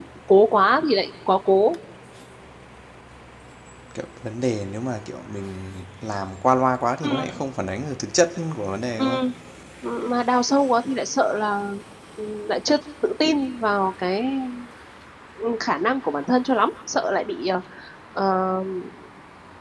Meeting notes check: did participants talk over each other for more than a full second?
No

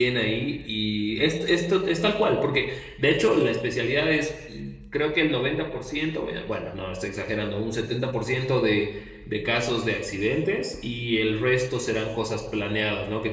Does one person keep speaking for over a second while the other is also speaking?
No

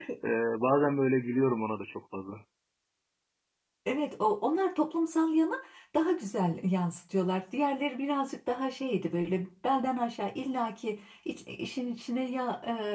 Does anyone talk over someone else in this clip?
No

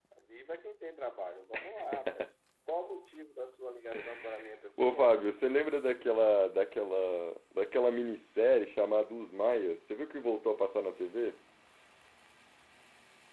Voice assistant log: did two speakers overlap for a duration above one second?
No

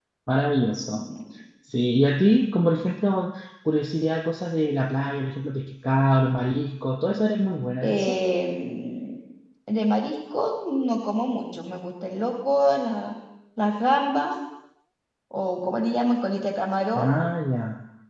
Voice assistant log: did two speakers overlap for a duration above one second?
No

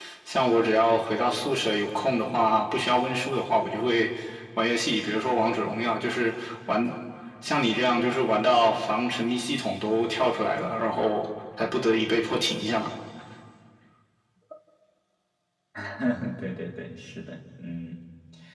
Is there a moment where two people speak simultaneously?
No

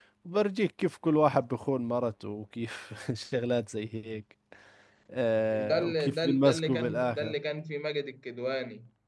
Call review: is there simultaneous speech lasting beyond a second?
Yes, from 5.5 s

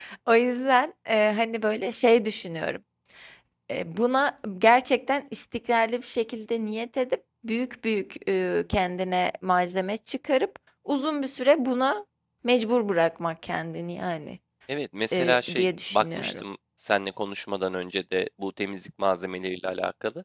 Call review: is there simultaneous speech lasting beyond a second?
Yes, from 15.1 s

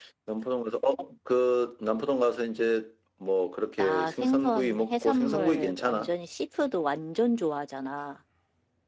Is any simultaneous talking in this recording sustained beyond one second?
Yes, from 3.8 s

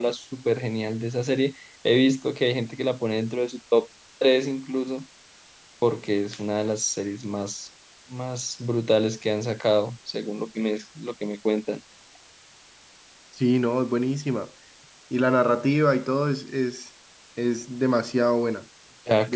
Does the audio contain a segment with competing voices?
No

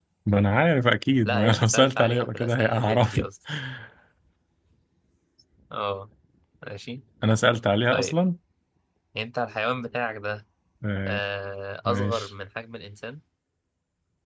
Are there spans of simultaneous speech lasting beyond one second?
Yes, from 1.2 s

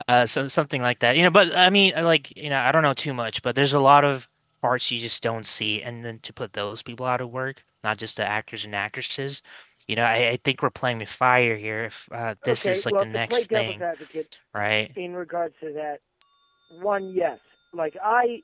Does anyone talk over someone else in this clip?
Yes, from 12.4 s

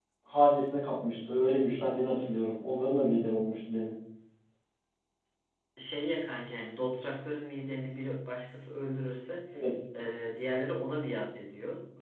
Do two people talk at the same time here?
No

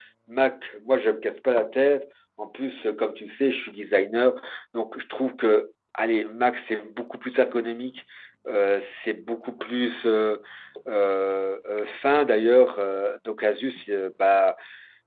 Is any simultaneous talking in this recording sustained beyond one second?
No

